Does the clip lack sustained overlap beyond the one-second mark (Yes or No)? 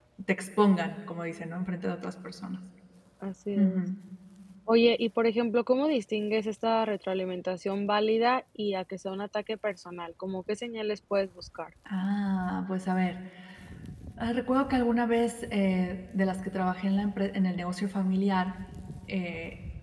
Yes